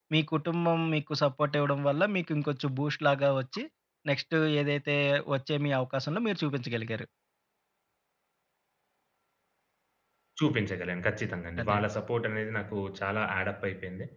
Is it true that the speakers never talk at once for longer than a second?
Yes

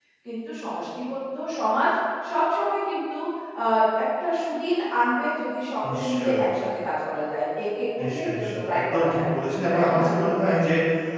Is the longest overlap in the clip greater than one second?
Yes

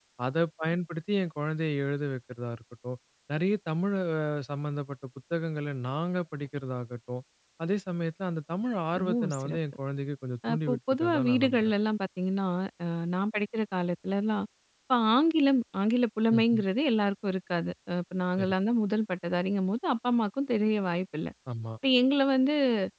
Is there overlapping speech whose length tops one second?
Yes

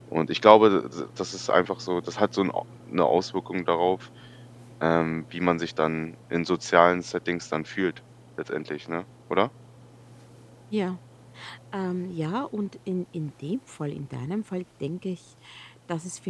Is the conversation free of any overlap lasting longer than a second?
Yes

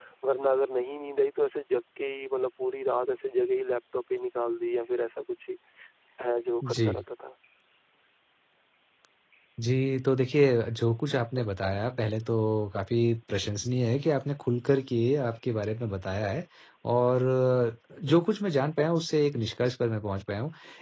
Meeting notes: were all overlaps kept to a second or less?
Yes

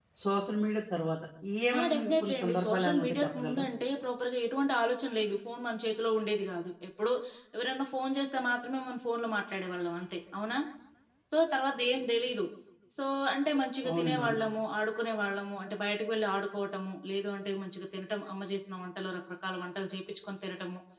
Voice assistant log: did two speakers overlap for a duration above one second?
Yes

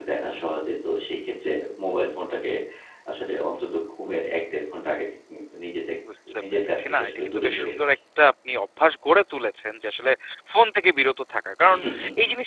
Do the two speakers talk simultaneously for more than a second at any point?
Yes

